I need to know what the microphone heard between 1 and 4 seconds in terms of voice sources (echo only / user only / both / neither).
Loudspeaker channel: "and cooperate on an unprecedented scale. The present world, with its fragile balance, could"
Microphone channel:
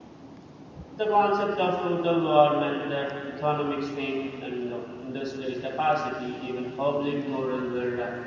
user only